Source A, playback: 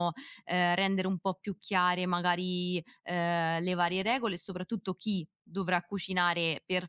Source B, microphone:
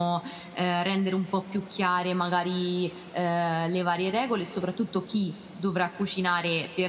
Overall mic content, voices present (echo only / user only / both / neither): echo only